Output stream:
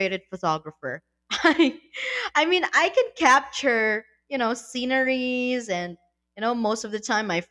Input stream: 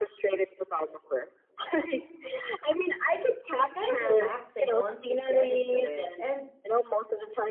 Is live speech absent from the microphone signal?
No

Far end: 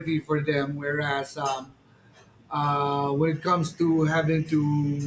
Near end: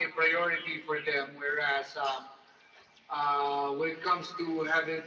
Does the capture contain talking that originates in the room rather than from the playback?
No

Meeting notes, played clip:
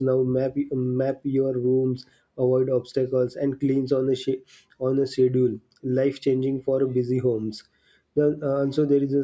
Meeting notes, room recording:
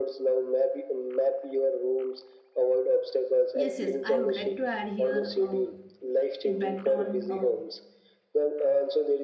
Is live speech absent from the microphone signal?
No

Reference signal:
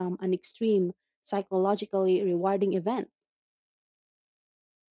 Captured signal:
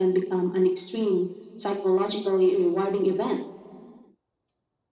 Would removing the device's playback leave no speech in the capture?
Yes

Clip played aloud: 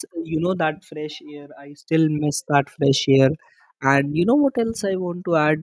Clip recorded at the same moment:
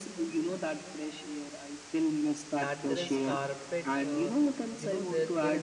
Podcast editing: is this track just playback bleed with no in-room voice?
No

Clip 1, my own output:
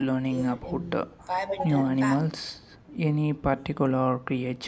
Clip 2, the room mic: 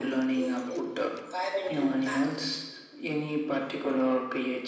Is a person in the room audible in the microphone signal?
No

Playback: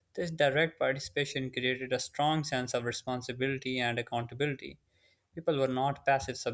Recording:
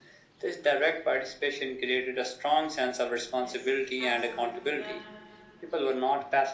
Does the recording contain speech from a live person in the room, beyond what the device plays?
Yes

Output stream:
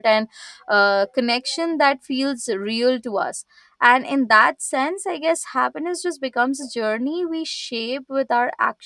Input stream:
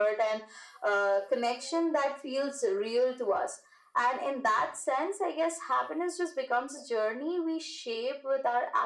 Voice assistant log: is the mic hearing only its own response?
Yes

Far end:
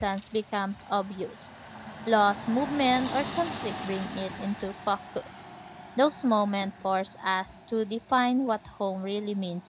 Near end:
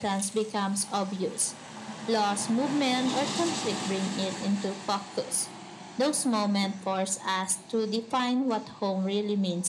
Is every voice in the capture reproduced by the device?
Yes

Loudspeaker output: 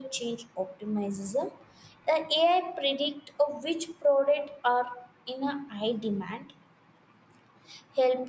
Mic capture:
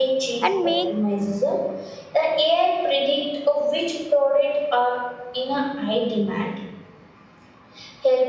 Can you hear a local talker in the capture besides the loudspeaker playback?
Yes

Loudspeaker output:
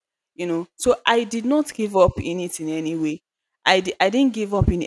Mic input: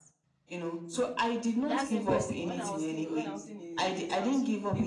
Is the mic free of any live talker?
No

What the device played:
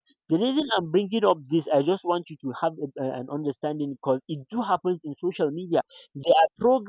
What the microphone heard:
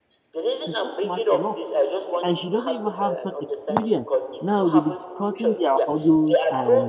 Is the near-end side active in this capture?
Yes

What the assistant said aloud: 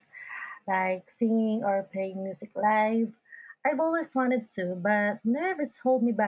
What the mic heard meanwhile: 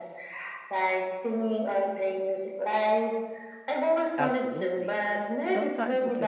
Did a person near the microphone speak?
Yes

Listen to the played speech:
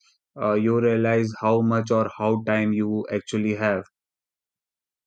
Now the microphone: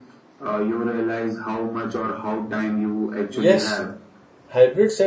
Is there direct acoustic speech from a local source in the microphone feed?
Yes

